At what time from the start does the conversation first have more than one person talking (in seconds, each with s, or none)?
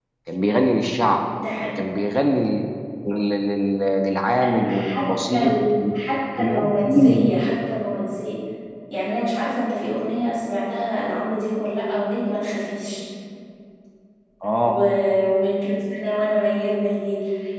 4.4 s